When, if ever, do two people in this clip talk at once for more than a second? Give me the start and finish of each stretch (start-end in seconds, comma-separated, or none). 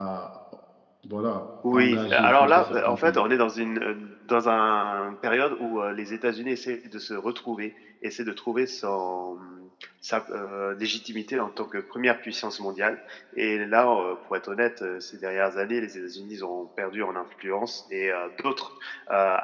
1.7-3.2